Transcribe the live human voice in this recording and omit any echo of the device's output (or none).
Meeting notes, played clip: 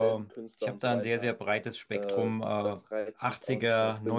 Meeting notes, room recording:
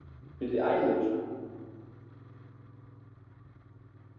Billie Eilish,